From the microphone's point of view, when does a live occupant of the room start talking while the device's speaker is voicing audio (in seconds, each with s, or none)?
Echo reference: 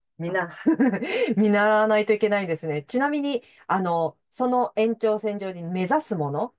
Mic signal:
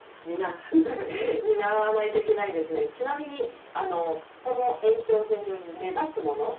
none